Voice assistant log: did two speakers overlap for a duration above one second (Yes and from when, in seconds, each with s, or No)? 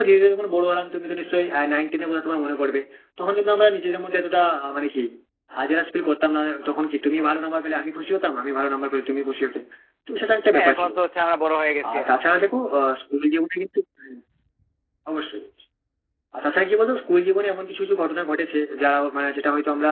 No